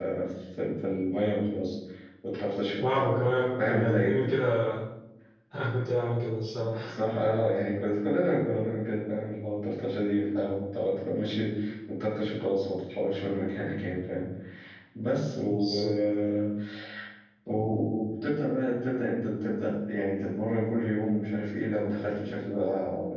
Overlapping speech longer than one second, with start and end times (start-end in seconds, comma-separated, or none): 2.9-4.2